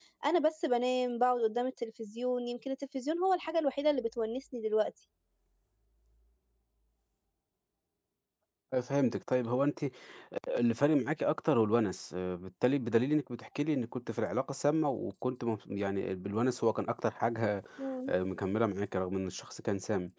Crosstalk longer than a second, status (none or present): none